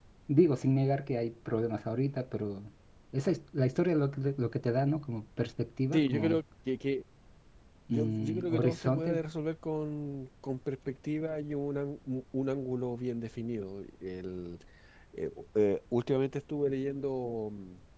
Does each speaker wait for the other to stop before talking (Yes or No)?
No